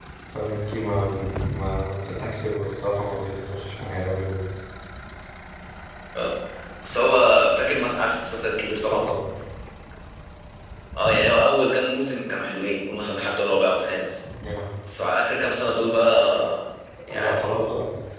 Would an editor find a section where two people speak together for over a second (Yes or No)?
No